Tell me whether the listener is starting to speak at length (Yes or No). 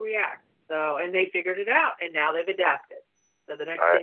No